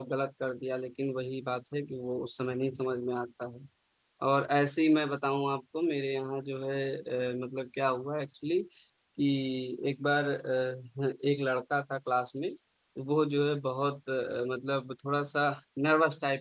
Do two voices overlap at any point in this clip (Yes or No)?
No